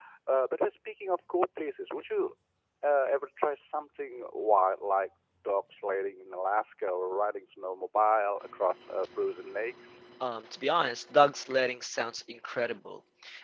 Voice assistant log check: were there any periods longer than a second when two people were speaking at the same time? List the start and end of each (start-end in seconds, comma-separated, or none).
none